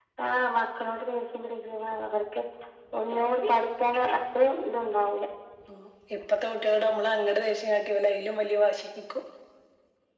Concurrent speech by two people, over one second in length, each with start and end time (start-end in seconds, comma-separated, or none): none